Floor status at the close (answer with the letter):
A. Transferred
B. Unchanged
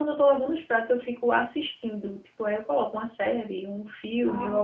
B